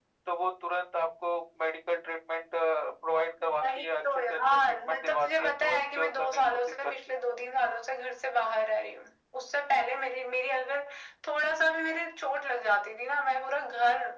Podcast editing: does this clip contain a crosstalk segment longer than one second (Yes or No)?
Yes